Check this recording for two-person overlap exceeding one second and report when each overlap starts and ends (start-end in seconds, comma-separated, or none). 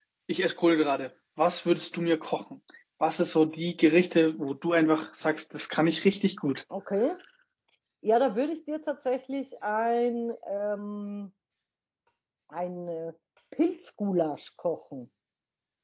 none